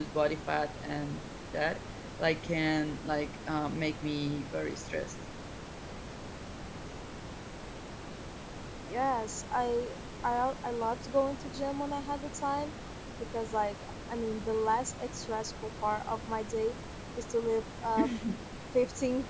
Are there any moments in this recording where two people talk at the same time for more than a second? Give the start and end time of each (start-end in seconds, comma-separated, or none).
none